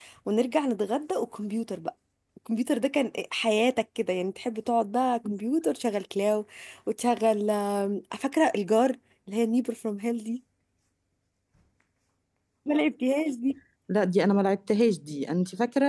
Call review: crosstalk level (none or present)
none